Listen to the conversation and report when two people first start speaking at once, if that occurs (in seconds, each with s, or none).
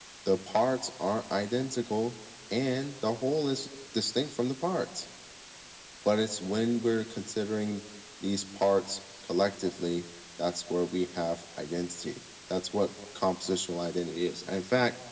none